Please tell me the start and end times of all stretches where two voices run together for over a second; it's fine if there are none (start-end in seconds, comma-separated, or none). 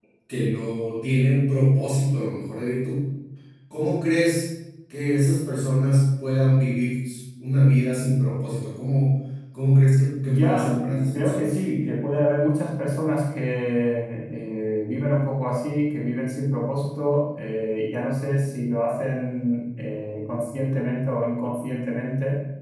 10.2-11.6